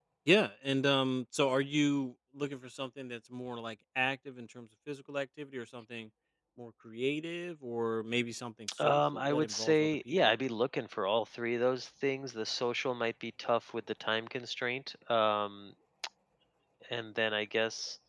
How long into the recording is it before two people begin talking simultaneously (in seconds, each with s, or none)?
8.7 s